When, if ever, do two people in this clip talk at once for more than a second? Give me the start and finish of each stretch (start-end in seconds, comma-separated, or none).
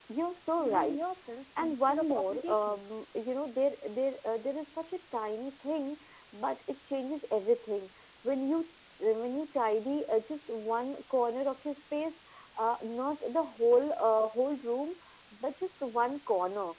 1.6-2.9